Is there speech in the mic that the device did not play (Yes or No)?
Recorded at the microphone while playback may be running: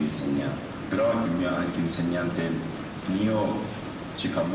No